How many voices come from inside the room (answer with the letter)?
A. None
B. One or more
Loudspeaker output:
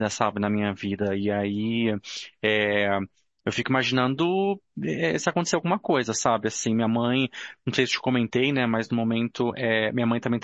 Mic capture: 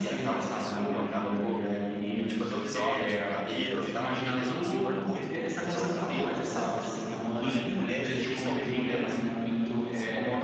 B